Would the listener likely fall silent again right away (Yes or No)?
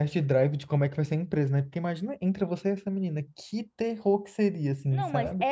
No